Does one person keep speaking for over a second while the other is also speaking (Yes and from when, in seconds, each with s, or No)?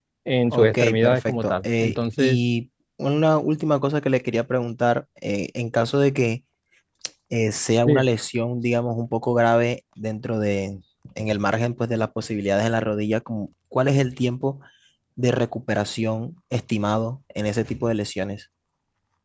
Yes, from 0.5 s